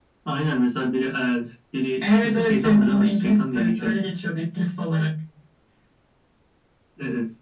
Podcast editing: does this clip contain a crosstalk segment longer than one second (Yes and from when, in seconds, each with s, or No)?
Yes, from 2.0 s